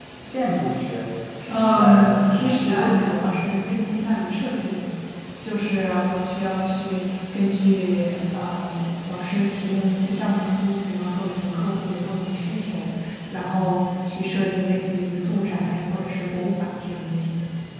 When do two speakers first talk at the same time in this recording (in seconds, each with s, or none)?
1.5 s